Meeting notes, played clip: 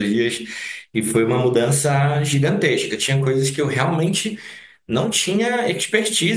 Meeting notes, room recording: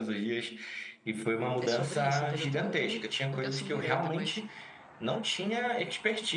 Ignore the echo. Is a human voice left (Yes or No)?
Yes